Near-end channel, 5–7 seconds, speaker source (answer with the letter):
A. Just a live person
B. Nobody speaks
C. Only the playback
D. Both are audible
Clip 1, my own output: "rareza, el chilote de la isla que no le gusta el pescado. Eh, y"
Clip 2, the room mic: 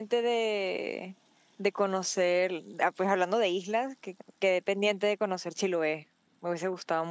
A